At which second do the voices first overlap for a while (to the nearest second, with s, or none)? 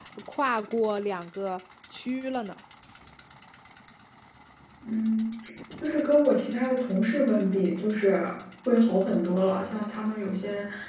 none